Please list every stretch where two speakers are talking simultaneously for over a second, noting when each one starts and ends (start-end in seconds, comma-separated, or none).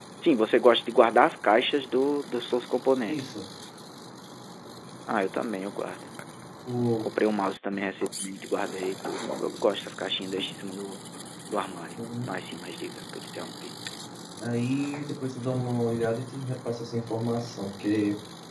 none